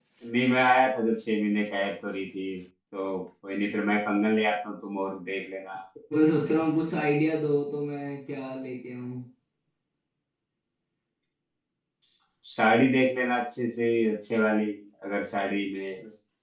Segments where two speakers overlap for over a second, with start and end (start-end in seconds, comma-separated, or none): none